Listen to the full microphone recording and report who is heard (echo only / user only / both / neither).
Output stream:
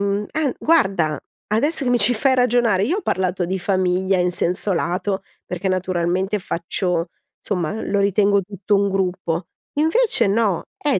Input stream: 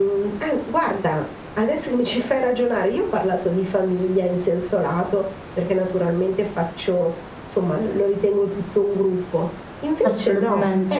both